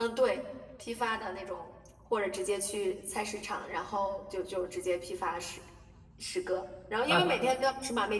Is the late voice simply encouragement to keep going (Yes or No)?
Yes